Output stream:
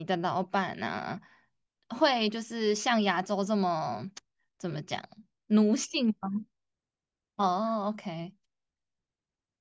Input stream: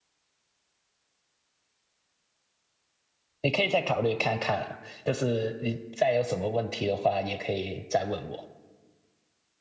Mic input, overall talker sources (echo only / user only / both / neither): user only